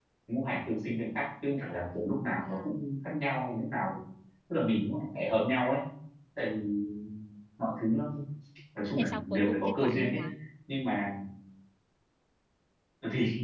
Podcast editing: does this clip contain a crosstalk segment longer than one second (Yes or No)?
Yes